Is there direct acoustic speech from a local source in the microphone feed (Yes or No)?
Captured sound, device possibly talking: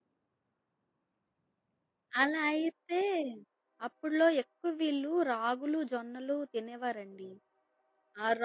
Yes